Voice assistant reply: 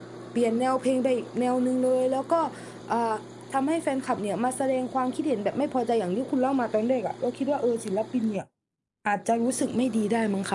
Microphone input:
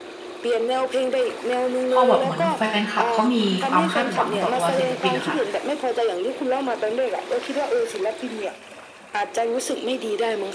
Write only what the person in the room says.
พอแบบเหมือนแฟนคลับเขามีความคาดหวังต่อตัวศิลปินอะค่ะ

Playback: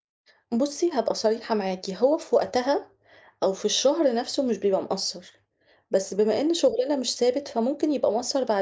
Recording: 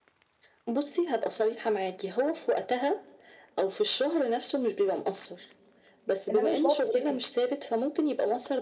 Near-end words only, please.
إنّما مش باقعد أفتكس.

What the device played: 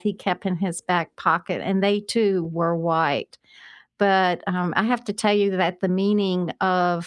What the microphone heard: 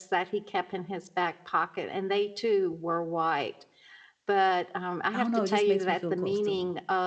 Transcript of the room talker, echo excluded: I don't know, it just makes me feel close to him.

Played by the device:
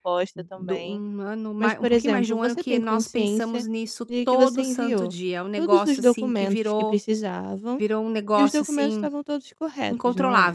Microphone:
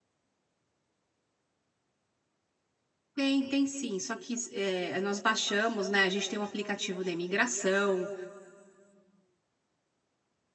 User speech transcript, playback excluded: Tem, tem sim, só que eh, nós baixamos, né, a gente tem um aplicativo da imigração,

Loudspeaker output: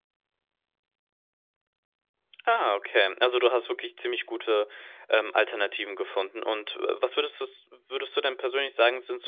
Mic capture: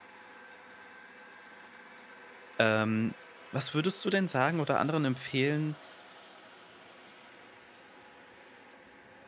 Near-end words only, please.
Ähm, was würdest du denn sagen oder anderen empfehlen,

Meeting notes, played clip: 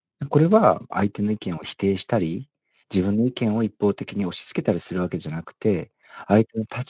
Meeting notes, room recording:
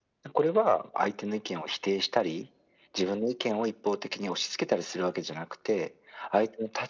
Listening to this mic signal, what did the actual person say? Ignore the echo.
none

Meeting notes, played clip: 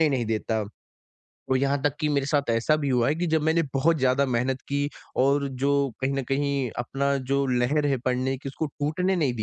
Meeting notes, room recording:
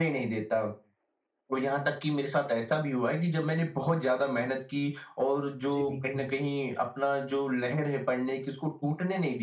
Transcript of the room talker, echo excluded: जी बिल्कुल।

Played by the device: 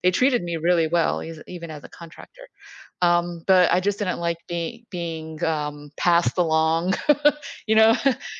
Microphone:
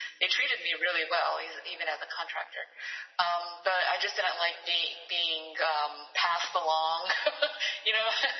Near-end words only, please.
none

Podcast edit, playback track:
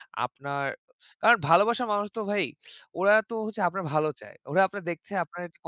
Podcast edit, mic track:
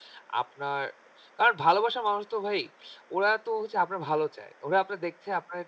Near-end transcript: none

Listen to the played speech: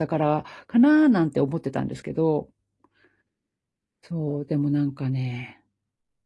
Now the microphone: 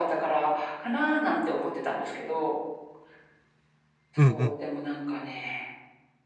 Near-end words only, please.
うんうん。

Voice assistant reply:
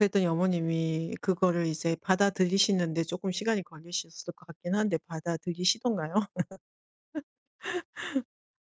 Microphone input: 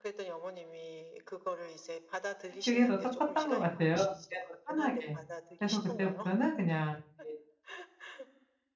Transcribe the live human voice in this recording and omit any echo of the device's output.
그게 더 더 컸던 것 같아요, 그냥 더 편하게. 그래서 그때부터는 그냥 이제

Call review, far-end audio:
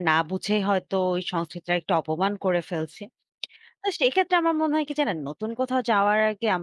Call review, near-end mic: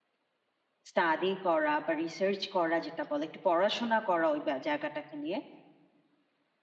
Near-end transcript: স্টাডি করা বা রিসার্চ করা যেটা বলে, একটু পড়াশোনা করা ওই ব্যা জায়গাটাকে নিয়ে।

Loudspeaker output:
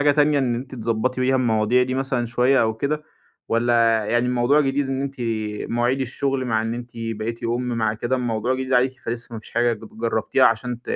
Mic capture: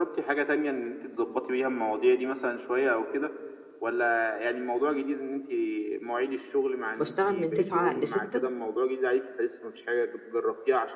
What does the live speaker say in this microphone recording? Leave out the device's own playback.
بشتغل من تسعة لستة

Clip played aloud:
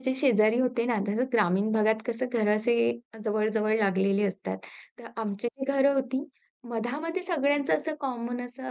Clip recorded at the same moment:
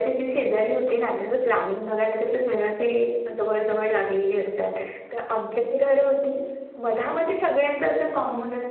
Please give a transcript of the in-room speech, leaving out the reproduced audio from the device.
none

